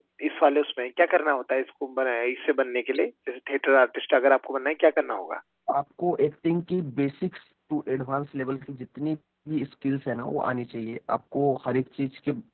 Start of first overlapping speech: none

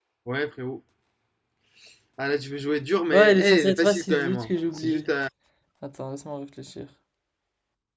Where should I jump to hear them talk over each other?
3.1 s

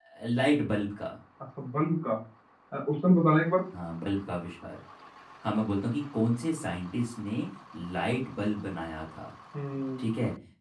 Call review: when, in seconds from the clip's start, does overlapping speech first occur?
none

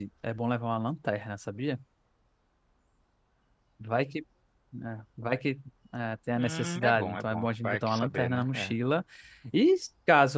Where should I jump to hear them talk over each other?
6.3 s

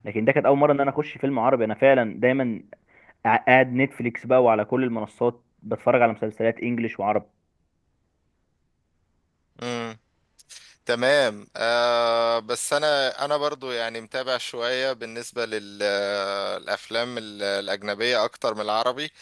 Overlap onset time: none

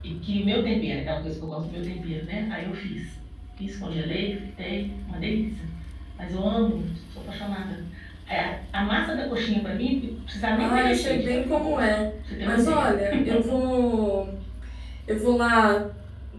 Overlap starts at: 10.6 s

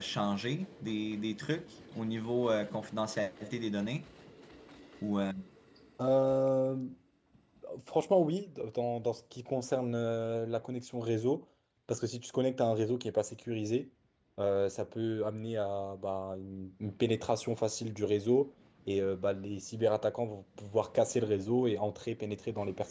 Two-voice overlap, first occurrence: none

